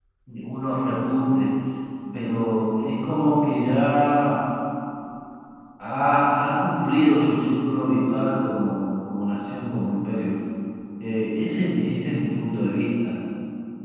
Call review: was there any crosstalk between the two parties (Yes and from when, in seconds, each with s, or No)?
No